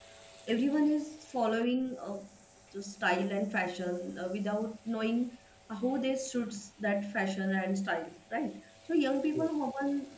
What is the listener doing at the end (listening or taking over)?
listening